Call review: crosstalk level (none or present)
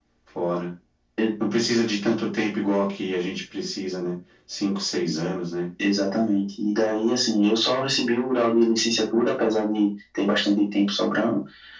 none